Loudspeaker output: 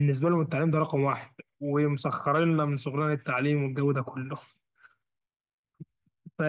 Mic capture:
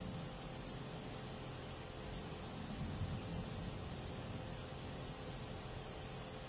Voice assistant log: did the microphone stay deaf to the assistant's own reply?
Yes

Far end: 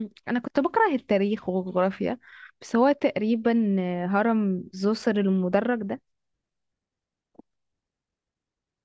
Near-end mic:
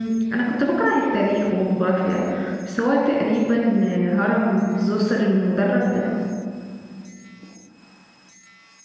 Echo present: Yes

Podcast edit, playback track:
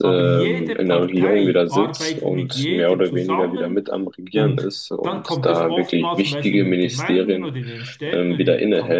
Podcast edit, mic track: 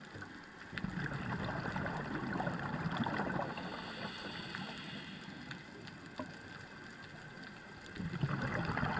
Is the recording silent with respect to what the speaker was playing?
Yes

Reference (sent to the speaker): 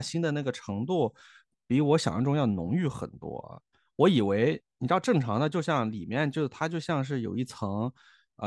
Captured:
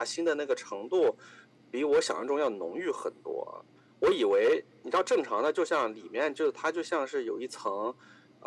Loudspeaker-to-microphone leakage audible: Yes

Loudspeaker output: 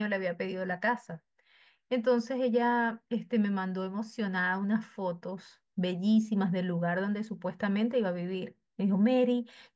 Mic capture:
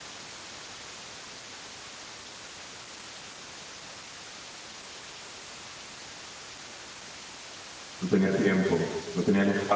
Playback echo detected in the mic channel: No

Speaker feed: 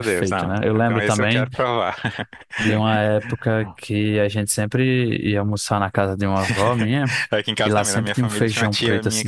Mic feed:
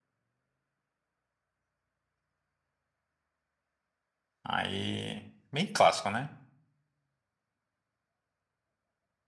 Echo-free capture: Yes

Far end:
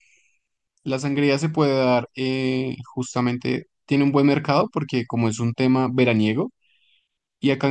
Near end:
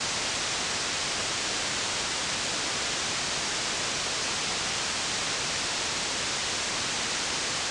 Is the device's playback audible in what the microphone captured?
No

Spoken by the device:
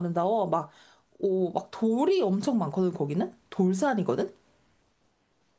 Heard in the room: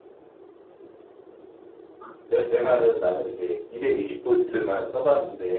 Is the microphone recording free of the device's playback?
Yes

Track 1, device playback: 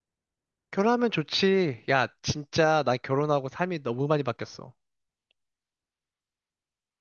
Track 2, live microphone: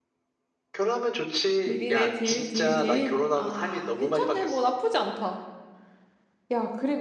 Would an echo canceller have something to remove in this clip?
Yes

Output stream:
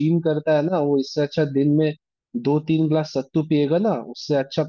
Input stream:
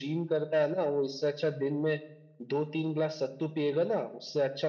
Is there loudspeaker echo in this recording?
Yes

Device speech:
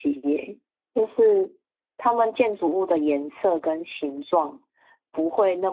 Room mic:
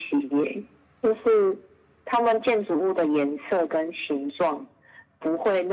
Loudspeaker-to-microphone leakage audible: Yes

